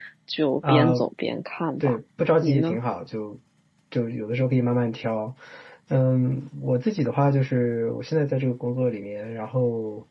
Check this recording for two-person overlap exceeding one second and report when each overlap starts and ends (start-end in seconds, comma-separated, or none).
none